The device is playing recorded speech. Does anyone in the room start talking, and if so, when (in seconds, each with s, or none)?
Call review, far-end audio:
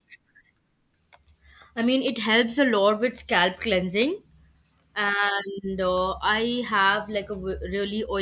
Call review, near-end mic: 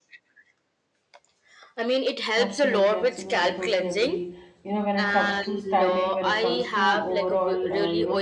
2.4 s